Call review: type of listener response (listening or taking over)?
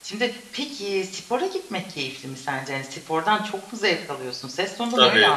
taking over